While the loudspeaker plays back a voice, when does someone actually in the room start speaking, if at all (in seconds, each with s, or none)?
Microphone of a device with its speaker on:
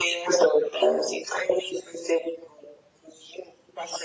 none